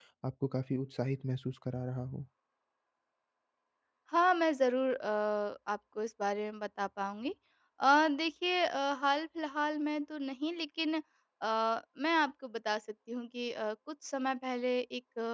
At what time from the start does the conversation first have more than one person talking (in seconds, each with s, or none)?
none